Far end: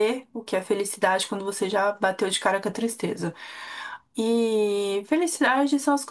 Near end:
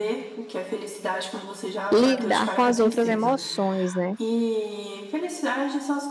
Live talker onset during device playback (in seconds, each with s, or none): 1.9 s